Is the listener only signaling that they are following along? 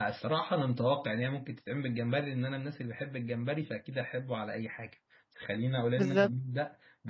Yes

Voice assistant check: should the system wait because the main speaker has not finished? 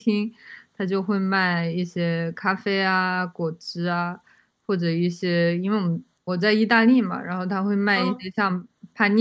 Yes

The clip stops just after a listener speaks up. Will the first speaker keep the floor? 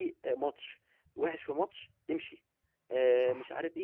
Yes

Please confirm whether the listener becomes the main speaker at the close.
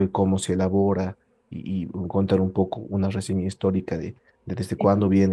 No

